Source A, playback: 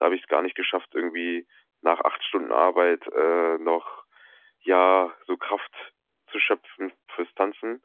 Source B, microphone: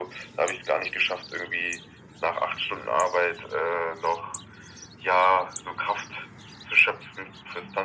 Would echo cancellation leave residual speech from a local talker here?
No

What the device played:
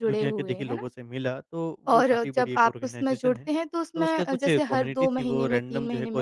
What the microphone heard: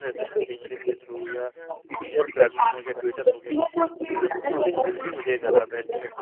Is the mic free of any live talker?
No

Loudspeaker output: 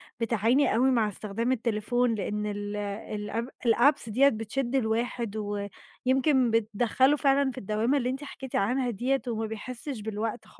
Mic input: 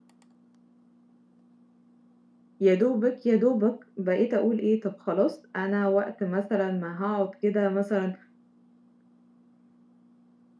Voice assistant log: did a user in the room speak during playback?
Yes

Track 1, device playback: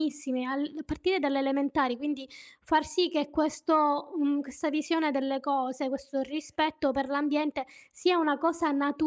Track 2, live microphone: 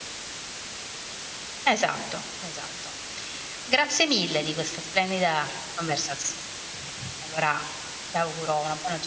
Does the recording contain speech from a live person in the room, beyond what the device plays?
Yes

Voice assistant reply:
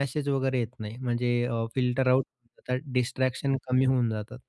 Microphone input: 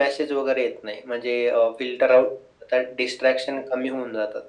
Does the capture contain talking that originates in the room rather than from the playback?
No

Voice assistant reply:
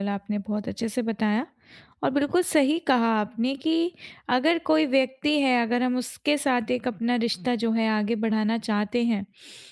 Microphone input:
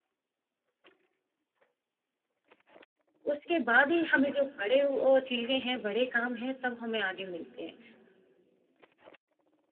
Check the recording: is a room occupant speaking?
Yes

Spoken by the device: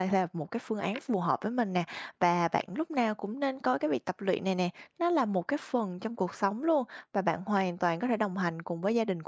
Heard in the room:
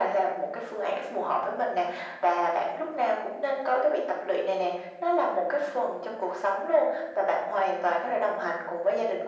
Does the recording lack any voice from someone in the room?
Yes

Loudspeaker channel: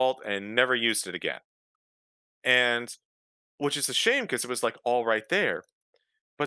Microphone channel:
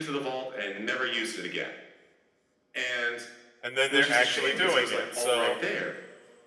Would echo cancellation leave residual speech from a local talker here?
Yes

